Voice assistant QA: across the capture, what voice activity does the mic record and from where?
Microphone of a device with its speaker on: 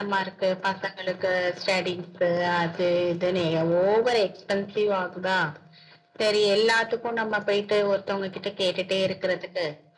echo only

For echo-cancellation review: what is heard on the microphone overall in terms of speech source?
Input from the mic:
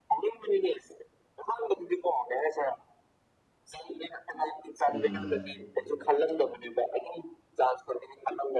both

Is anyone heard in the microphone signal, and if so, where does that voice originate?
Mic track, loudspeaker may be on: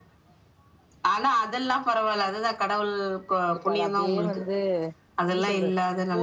both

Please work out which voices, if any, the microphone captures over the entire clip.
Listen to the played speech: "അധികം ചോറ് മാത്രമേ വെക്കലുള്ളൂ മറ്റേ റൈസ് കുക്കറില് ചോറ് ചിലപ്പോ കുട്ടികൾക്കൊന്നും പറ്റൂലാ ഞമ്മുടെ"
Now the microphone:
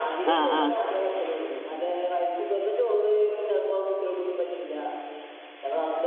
both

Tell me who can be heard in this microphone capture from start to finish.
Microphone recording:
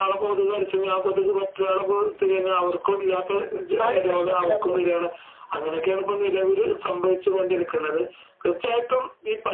both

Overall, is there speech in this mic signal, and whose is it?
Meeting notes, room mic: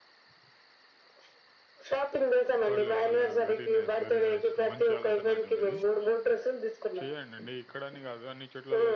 both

